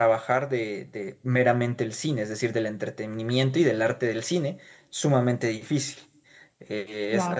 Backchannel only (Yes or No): Yes